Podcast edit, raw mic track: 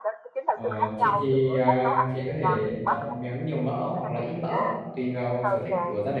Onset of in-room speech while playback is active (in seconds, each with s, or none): 0.5 s